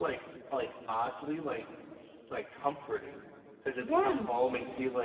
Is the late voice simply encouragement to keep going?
Yes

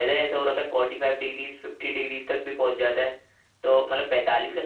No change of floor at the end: Yes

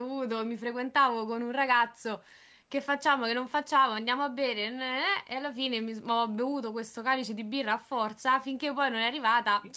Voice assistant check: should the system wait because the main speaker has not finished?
Yes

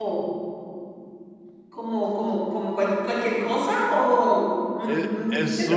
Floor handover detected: Yes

